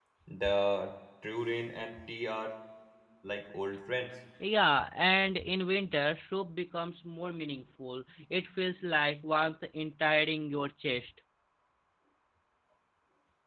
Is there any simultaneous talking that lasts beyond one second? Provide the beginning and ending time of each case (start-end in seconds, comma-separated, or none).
none